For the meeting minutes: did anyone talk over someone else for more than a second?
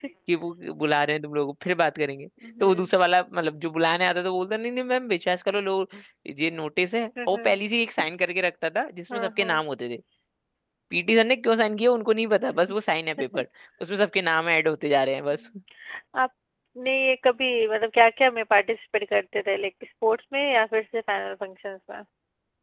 No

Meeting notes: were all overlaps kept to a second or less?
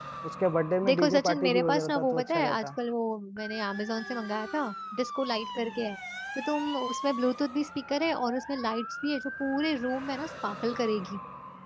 No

